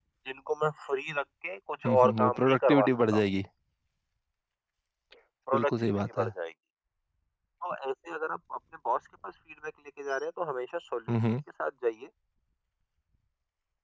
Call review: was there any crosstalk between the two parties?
Yes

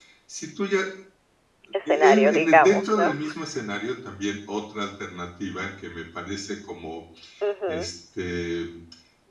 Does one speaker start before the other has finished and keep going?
Yes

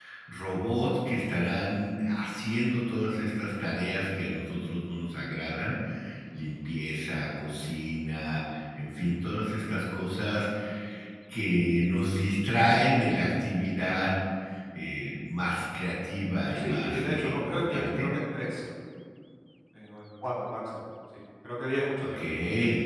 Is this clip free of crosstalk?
No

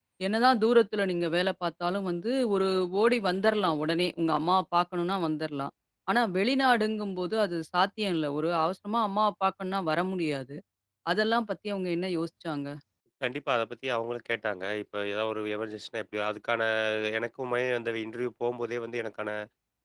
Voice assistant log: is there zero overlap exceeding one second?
Yes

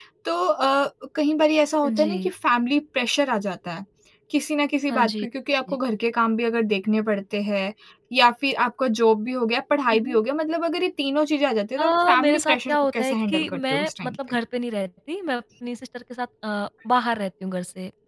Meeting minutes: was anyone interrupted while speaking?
Yes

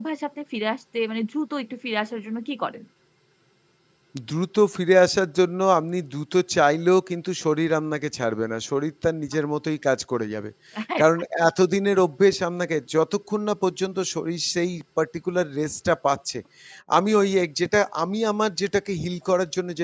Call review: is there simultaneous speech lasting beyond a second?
No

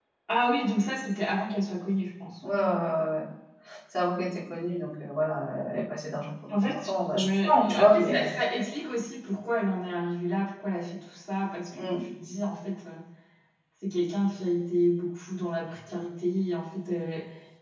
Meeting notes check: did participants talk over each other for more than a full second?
Yes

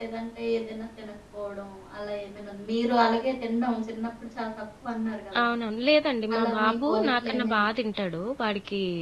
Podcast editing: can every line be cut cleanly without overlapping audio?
No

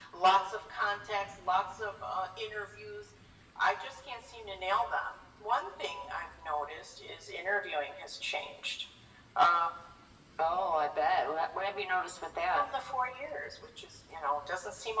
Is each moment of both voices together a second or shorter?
Yes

